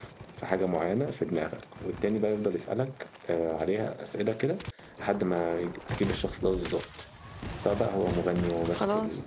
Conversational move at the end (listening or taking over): listening